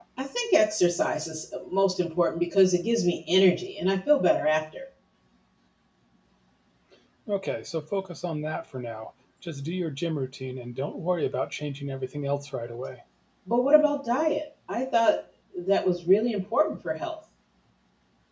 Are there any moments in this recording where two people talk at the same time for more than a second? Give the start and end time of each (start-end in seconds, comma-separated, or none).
none